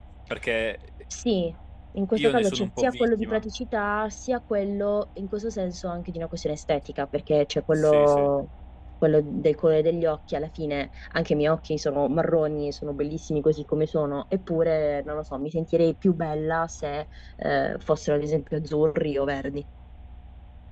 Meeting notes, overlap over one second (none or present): present